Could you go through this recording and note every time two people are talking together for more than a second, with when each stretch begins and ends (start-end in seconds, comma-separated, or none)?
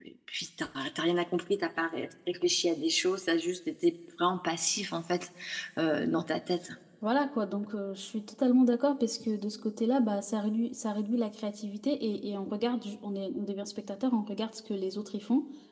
none